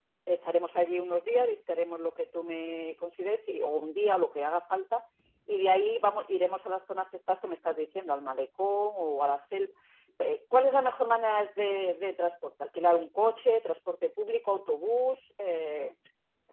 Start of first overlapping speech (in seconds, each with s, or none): none